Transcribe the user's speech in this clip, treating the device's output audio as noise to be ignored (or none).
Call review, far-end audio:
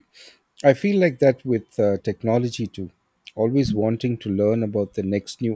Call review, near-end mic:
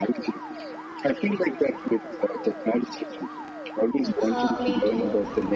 Huh, me too.